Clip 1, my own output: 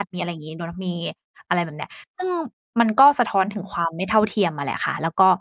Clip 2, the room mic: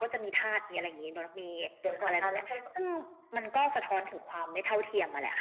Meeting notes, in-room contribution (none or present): present